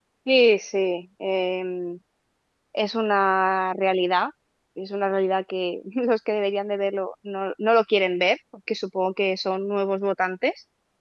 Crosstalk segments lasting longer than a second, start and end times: none

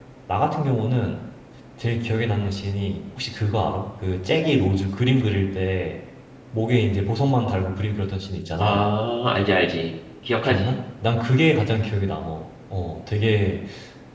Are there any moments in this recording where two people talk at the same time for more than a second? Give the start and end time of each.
none

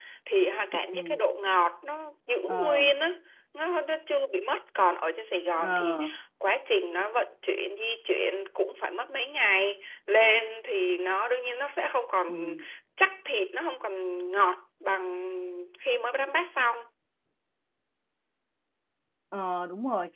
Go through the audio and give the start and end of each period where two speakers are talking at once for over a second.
none

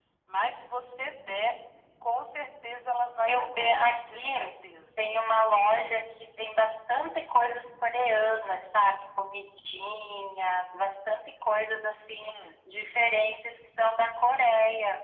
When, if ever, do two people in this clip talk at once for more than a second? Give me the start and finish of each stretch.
3.2-4.5

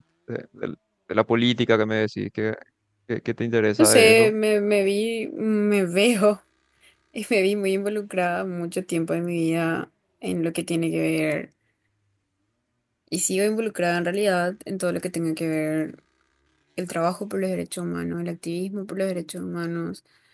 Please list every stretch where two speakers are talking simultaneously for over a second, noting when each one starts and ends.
none

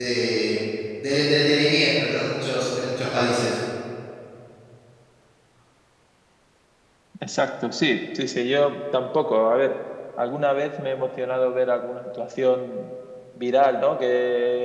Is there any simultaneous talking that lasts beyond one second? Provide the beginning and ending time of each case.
none

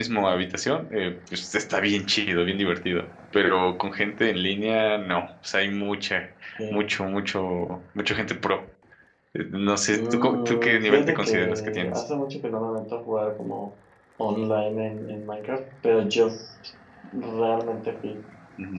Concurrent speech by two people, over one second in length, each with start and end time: 9.9-12.0

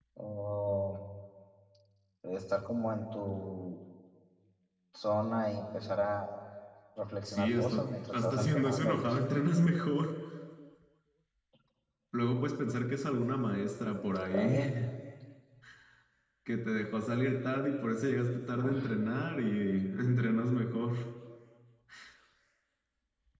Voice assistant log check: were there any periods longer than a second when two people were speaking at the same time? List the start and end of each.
7.2-9.2

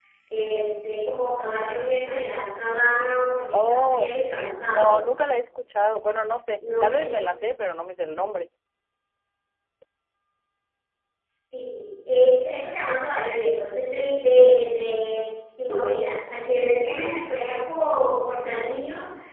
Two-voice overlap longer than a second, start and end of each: 3.5-5.0

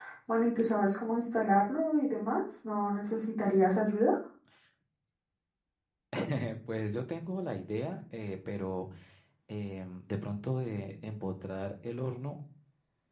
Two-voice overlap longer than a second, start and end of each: none

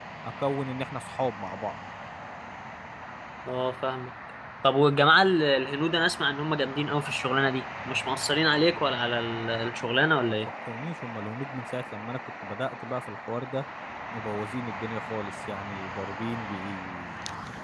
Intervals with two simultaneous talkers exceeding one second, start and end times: none

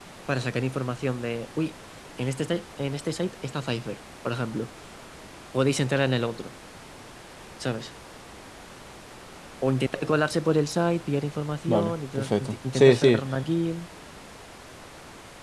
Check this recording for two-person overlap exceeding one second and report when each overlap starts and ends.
11.7-13.2

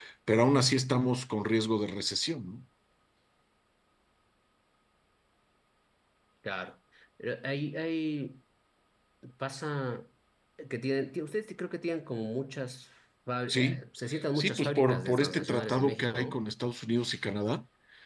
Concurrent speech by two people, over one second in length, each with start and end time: 14.3-16.4

